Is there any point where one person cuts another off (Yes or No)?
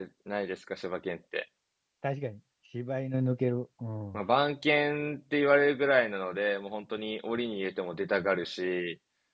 No